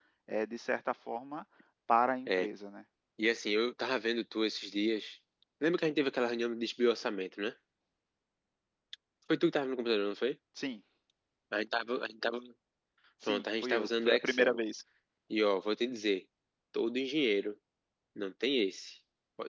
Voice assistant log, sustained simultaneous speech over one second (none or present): present